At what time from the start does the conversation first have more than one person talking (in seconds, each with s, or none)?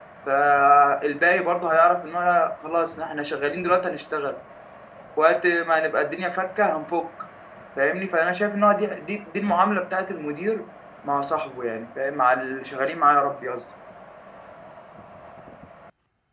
none